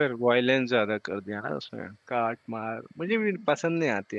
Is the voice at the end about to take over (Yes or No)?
No